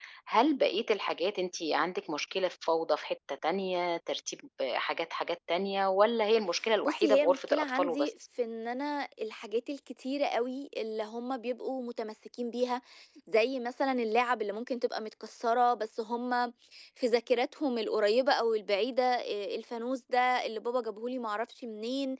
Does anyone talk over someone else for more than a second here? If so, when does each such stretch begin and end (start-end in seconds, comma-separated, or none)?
6.8-8.1